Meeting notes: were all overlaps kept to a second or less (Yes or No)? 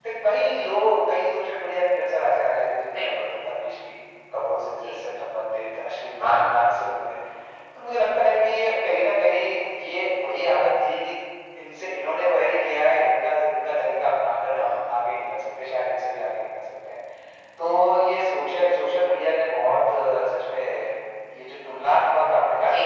Yes